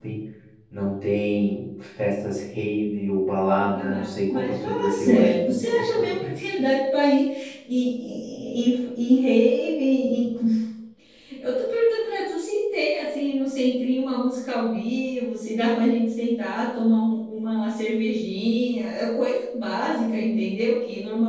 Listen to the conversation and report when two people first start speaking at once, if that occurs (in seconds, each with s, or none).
3.6 s